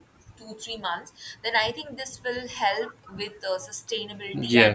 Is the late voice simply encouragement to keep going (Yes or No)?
No